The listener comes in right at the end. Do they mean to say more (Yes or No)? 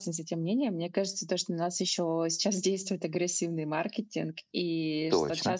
No